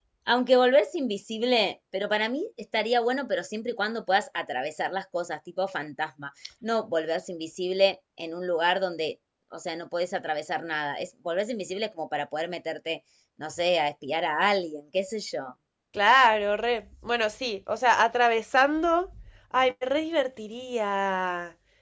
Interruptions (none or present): none